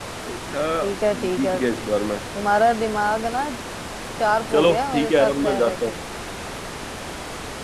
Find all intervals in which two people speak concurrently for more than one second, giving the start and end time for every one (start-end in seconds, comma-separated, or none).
4.5-6.0